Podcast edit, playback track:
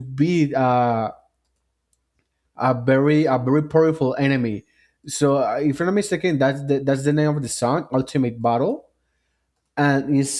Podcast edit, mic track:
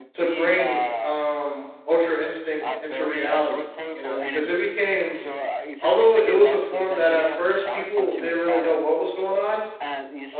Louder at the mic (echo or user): user